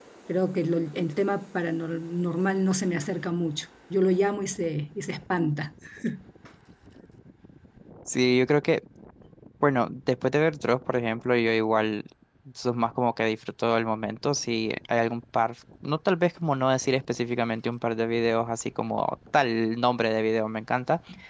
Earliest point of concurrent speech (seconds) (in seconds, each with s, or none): none